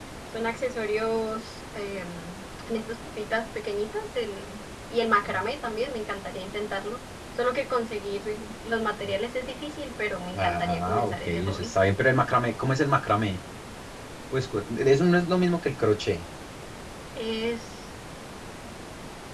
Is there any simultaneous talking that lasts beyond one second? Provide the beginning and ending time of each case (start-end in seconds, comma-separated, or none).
10.3-11.7